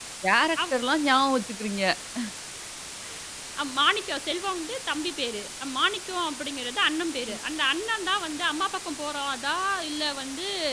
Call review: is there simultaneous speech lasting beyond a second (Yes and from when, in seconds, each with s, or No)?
No